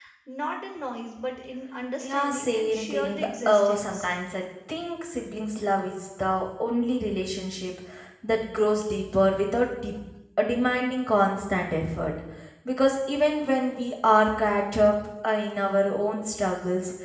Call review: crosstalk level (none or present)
present